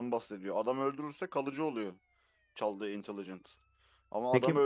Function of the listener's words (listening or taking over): listening